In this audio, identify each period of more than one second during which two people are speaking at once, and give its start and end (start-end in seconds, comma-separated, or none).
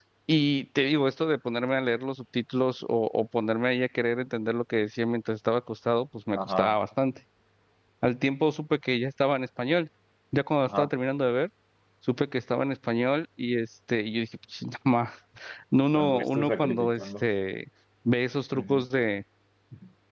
15.9-17.2